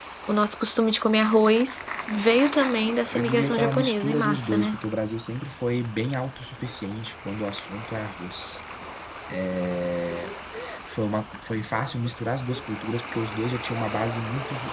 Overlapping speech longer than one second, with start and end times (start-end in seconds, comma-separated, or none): 3.1-4.8